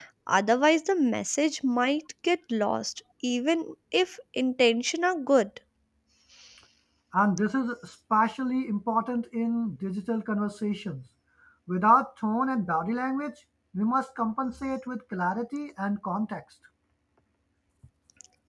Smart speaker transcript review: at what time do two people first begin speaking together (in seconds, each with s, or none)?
none